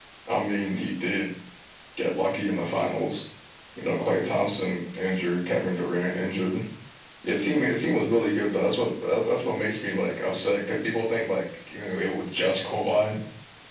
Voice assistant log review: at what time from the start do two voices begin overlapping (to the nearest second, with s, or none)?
none